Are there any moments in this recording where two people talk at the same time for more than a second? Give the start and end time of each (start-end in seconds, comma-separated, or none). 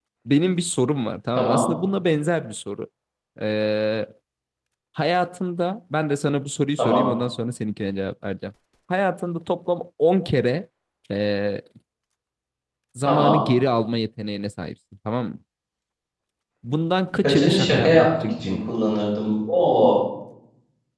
17.2-18.7